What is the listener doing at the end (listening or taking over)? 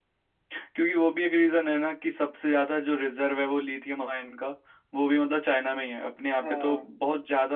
listening